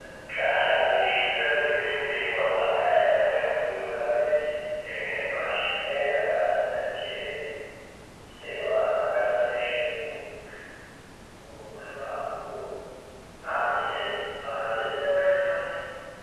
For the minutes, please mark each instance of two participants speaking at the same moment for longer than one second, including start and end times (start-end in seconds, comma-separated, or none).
none